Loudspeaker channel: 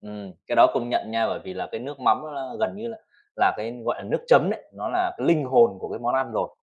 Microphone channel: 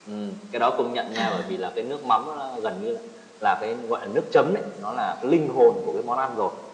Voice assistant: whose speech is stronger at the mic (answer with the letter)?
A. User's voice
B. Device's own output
B